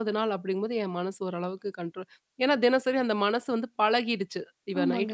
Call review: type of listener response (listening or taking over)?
listening